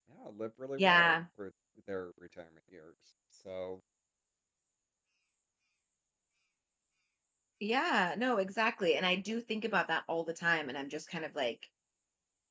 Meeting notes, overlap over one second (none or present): none